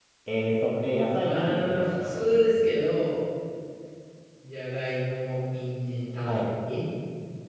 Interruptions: present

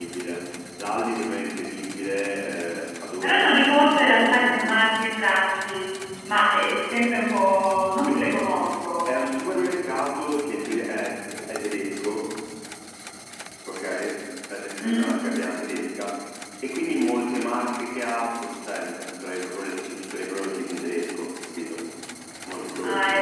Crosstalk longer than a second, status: present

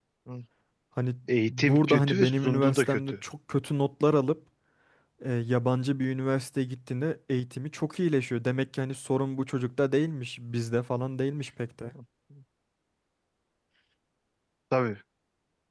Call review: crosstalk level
present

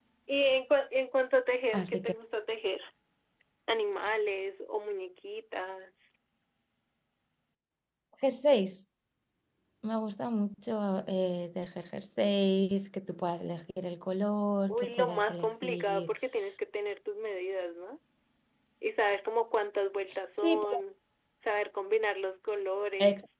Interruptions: present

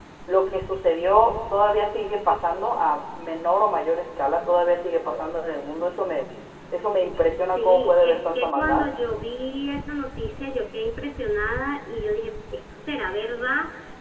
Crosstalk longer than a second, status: present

